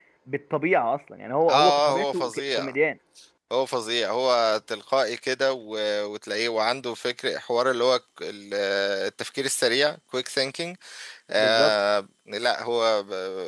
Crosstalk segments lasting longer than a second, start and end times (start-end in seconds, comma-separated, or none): 1.5-2.8